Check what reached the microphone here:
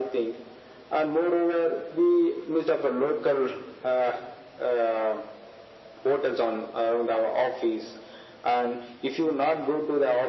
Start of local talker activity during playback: none

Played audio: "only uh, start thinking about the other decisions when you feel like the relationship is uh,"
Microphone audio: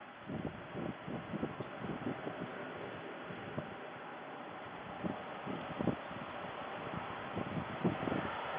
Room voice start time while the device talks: none

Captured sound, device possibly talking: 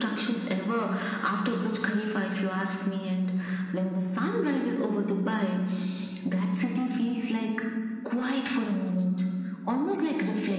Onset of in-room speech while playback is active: none

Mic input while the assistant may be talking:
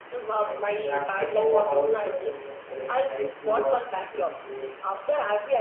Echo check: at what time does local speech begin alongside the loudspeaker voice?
0.3 s

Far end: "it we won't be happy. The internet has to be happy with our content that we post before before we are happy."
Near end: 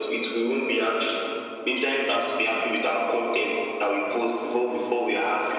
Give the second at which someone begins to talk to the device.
none

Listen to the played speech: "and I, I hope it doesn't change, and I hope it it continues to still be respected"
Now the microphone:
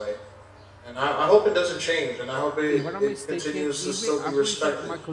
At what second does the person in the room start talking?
2.7 s

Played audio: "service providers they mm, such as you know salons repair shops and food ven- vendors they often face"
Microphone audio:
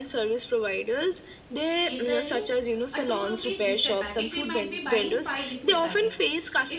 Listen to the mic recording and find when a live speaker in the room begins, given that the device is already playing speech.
1.9 s

